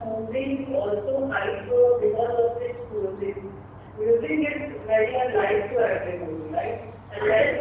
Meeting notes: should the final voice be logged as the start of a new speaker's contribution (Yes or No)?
Yes